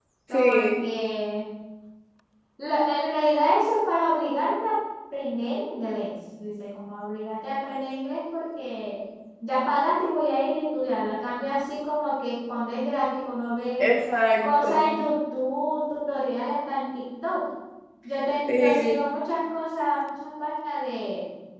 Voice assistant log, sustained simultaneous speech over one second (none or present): none